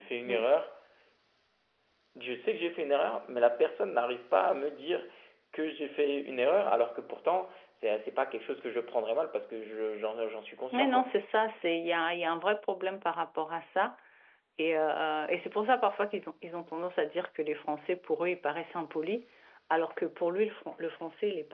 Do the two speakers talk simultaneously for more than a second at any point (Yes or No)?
No